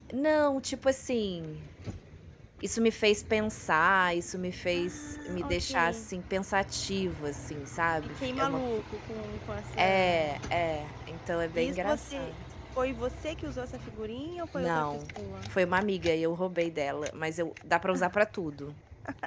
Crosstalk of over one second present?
Yes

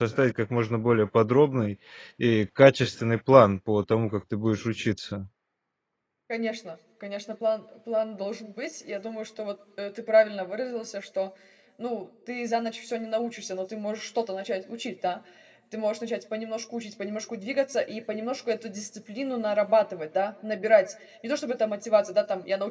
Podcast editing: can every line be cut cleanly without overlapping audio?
Yes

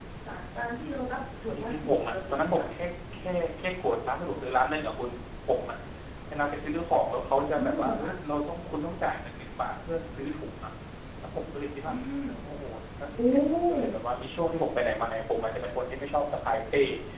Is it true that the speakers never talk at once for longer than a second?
No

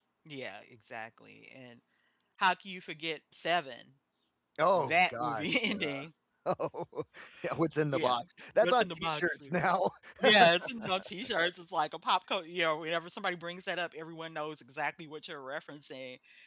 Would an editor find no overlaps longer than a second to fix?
No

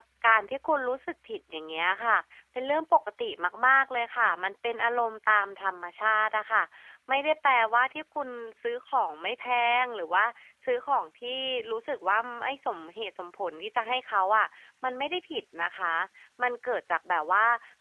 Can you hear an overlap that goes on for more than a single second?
No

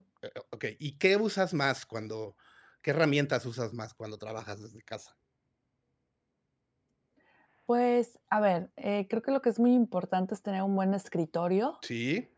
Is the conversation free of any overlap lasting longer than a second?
Yes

